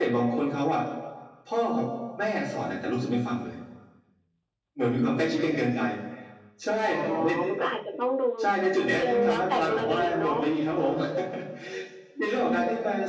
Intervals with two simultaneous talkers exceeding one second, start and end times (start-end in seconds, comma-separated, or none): 9.0-10.3